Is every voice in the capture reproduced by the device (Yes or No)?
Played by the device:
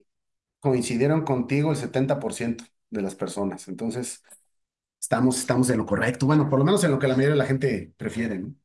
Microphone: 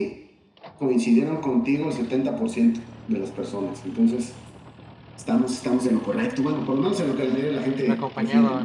No